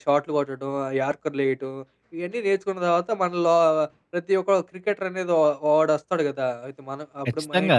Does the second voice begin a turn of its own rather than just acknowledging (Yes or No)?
Yes